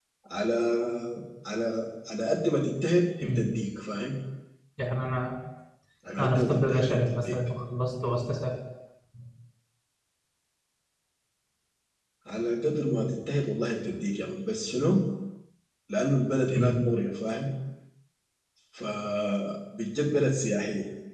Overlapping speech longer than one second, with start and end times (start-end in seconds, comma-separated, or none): 6.2-7.4